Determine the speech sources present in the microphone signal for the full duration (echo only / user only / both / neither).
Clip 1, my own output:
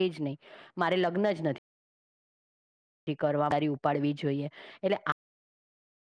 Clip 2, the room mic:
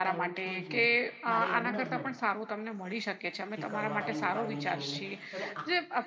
both